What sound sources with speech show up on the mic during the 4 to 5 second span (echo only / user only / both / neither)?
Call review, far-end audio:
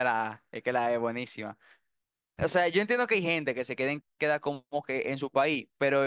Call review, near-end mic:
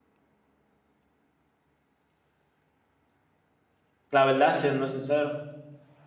user only